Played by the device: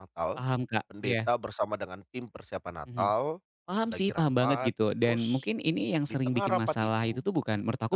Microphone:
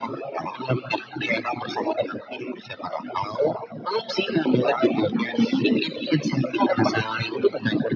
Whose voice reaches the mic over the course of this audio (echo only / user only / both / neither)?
echo only